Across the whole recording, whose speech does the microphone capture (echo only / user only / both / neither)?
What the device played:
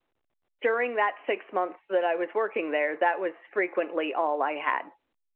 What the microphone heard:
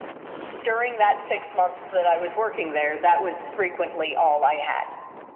echo only